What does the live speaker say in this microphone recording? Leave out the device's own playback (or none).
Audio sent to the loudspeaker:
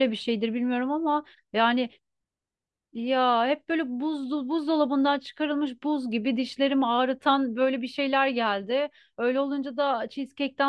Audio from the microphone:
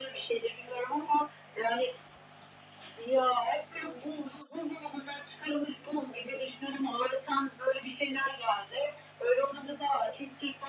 none